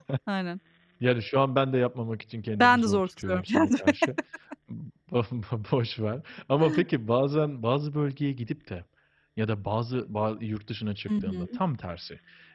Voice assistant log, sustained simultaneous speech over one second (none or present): present